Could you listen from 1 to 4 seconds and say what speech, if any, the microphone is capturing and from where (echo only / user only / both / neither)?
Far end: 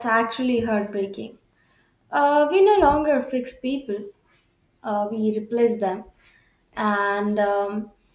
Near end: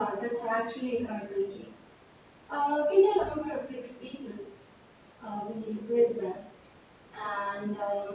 echo only